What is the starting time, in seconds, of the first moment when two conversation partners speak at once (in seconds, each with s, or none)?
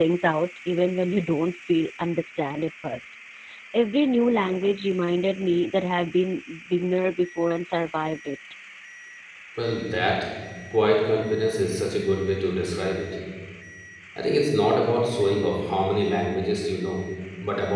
none